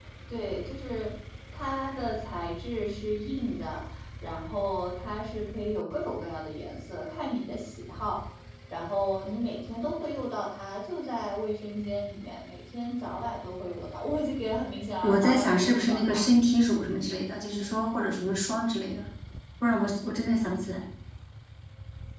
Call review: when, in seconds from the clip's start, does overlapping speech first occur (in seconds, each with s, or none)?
15.0 s